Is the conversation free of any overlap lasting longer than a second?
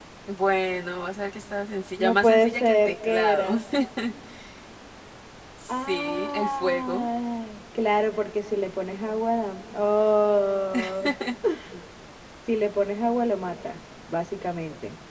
No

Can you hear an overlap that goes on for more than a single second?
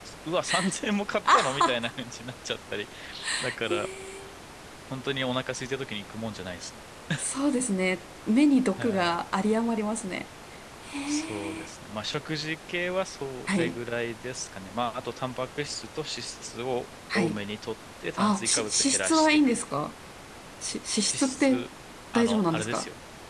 Yes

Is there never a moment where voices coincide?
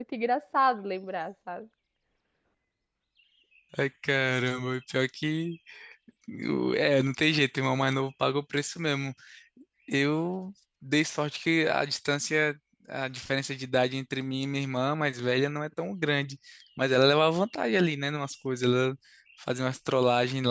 Yes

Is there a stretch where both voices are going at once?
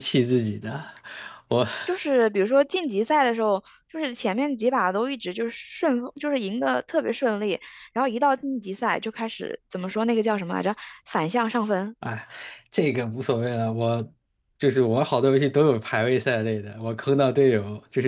No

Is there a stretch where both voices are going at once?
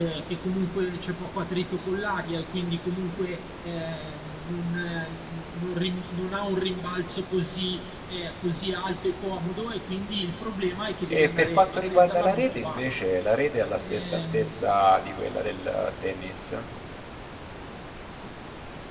Yes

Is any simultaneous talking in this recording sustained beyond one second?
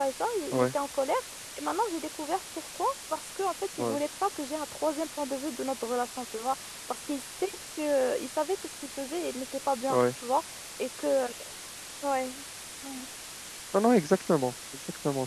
No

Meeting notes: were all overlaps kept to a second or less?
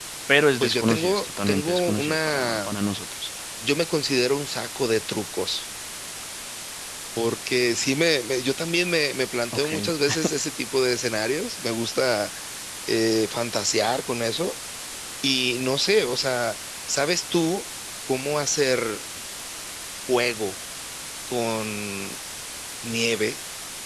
No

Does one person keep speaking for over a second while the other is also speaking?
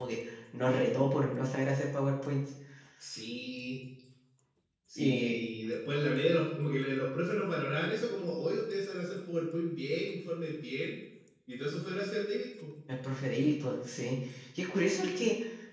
No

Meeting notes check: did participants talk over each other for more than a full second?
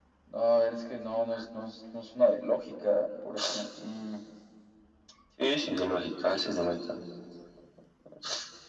No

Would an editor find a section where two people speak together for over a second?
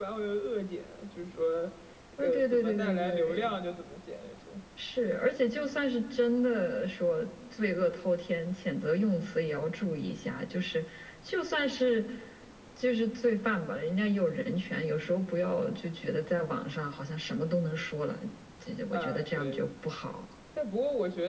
Yes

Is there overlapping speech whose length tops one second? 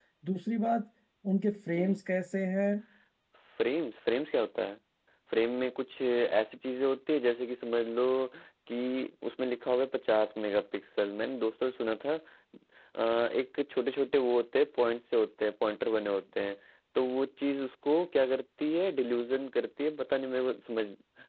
No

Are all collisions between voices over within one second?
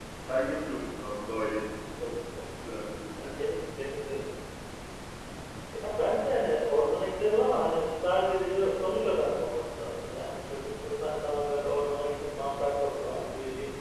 Yes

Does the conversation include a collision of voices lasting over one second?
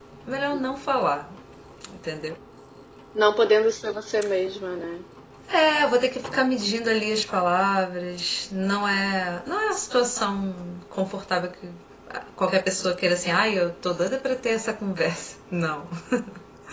No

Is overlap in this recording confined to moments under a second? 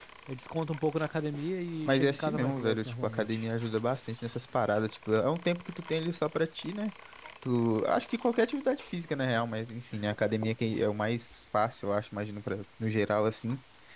No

